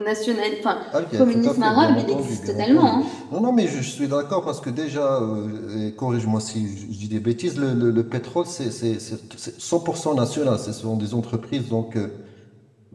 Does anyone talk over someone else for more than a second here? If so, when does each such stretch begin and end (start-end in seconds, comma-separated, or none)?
1.2-3.1